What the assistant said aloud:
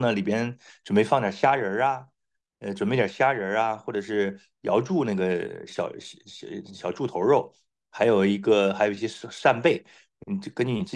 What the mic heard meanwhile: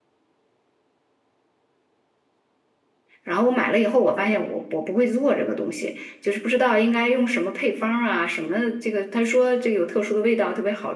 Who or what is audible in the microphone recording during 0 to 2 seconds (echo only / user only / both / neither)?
neither